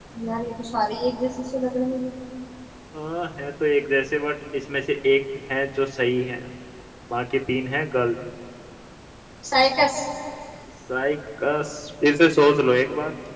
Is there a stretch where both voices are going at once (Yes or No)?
No